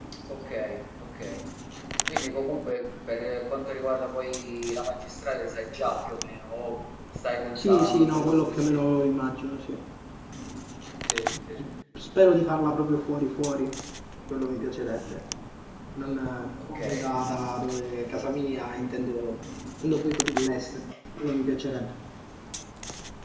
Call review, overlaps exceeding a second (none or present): present